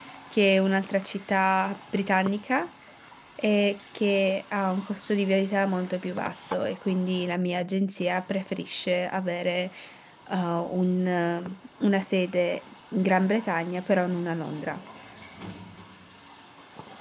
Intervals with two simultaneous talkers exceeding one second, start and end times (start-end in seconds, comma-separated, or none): none